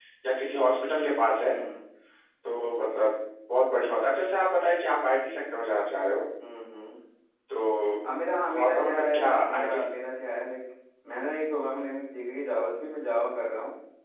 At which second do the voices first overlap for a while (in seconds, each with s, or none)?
8.5 s